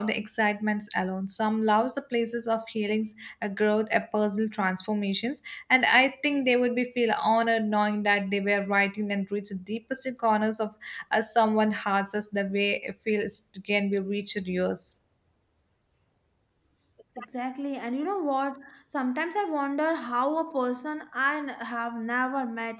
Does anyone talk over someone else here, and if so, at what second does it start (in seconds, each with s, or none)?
none